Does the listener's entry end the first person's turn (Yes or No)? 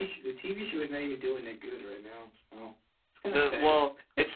Yes